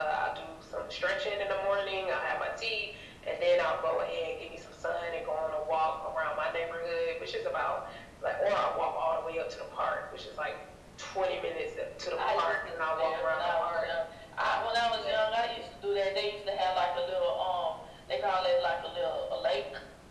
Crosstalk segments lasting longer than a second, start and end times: 12.3-13.9

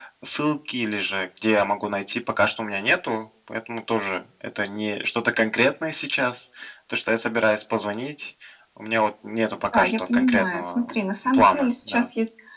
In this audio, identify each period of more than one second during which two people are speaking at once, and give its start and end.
9.7-12.1

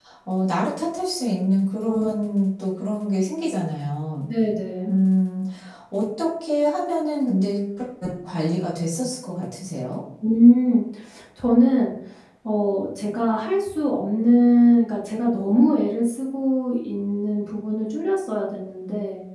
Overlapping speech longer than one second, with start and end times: none

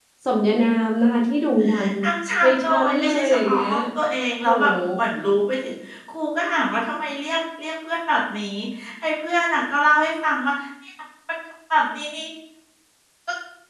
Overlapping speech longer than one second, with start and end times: 2.4-3.7

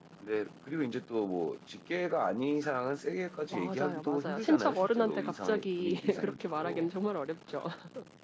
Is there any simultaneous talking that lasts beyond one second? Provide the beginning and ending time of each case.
3.5-6.9

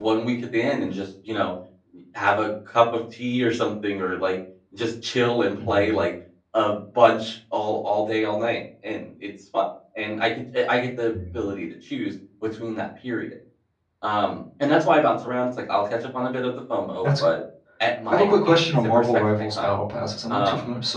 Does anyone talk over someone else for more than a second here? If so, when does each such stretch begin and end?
18.1-19.7

